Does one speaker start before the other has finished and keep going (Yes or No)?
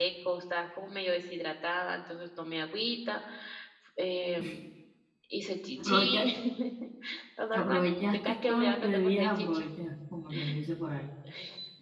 Yes